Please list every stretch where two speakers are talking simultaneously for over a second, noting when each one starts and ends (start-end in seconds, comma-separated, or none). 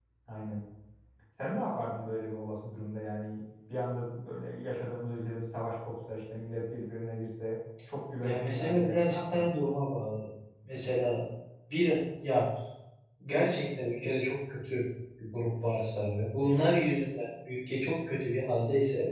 8.2-9.6